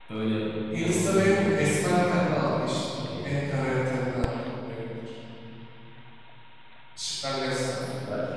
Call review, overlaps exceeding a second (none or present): present